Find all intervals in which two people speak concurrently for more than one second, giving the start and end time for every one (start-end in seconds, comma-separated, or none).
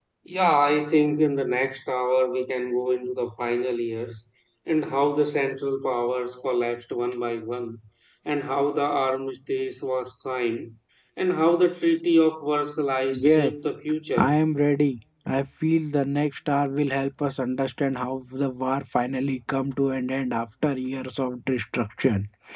none